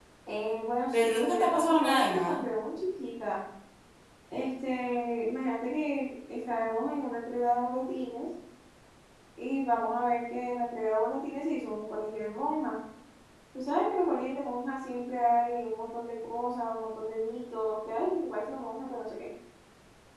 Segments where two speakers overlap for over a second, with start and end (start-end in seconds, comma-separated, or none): 0.9-2.4